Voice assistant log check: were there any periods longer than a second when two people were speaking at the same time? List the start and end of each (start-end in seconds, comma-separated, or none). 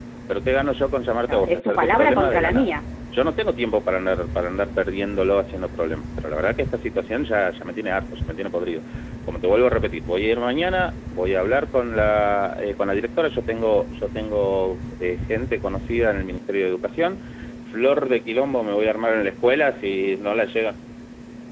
1.2-2.7